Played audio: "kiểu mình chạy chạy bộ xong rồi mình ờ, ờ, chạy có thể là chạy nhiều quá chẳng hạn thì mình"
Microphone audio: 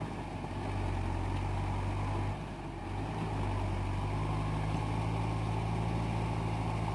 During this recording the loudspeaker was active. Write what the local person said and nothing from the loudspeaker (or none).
none